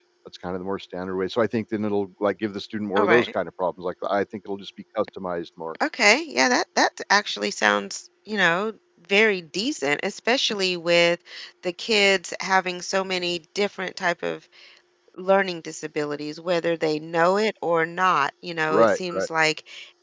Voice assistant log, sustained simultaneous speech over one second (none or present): none